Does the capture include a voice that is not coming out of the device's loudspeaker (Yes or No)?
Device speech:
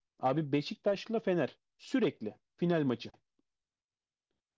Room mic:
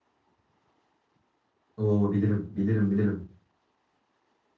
Yes